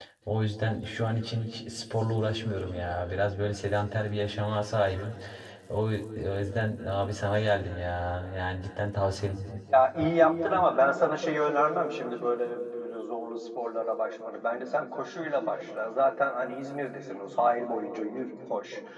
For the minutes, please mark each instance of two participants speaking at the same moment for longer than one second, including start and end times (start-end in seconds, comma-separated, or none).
none